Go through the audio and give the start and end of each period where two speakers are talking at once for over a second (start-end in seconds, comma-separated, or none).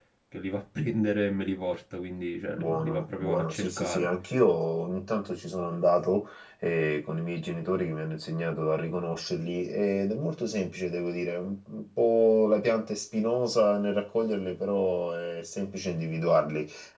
2.6-4.1